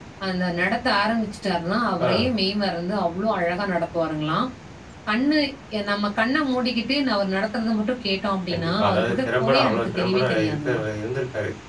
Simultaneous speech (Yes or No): Yes